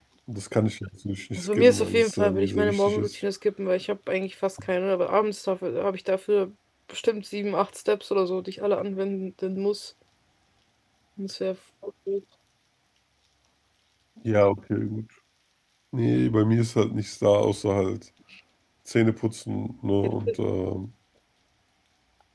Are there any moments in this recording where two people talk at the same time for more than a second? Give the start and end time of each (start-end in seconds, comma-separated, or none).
1.4-3.1